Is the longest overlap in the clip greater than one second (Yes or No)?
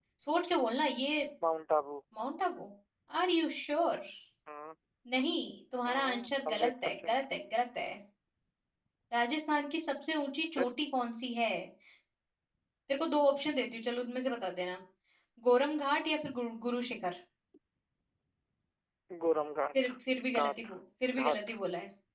Yes